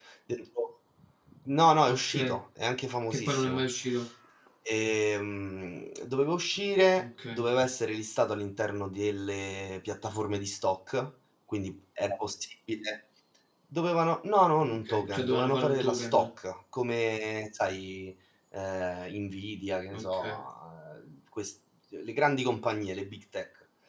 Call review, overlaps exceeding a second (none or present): present